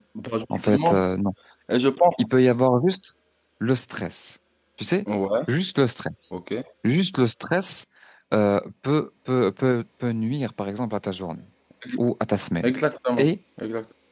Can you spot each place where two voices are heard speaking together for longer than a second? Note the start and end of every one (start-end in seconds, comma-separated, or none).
none